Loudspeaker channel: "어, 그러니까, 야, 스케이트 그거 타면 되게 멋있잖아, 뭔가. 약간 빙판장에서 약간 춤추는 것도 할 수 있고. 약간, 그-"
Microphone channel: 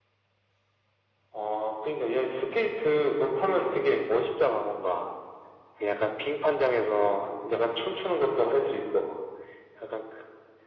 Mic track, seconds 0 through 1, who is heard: neither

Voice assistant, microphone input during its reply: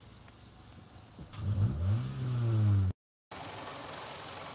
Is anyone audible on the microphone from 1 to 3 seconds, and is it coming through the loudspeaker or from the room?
neither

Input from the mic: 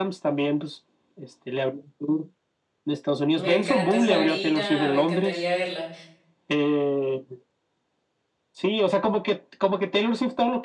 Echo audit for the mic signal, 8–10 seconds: echo only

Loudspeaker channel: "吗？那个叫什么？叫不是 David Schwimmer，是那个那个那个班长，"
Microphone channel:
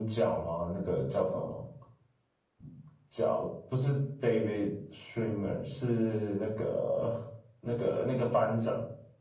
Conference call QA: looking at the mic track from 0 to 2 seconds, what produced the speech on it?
echo only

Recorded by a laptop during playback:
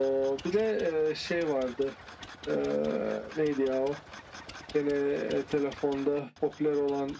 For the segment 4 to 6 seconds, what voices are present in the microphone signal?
echo only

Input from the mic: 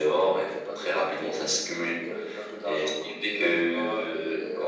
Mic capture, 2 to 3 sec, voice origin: echo only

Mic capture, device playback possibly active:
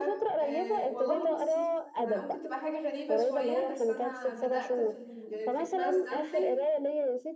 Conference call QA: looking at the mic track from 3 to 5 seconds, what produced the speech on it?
both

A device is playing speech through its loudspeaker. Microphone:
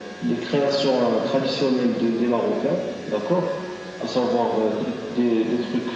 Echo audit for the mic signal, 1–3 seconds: echo only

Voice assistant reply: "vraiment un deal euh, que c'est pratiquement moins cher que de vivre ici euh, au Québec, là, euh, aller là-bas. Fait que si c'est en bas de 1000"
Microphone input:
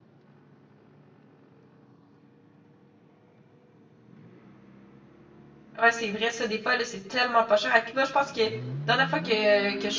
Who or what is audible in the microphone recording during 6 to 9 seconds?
user only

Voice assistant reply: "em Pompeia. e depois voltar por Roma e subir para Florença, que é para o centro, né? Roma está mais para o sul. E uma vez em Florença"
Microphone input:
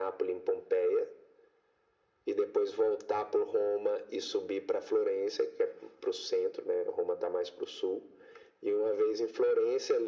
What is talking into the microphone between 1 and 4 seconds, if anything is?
echo only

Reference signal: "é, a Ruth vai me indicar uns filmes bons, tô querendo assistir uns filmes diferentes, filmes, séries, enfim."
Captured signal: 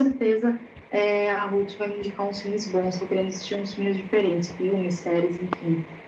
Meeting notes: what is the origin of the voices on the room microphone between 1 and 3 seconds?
echo only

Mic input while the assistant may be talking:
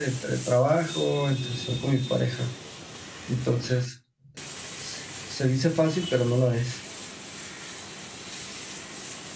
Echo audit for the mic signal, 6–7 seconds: user only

